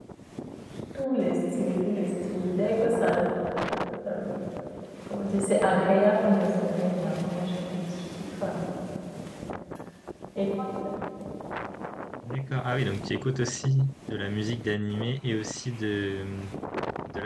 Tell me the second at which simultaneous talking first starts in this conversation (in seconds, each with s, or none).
none